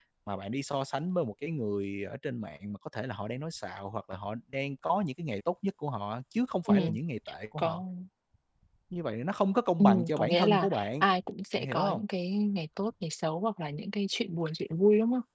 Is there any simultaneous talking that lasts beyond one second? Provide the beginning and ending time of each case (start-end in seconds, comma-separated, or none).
9.8-11.0